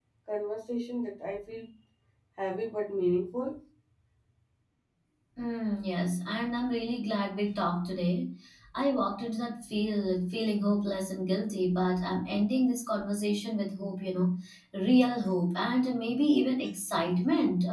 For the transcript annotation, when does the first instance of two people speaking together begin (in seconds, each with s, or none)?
none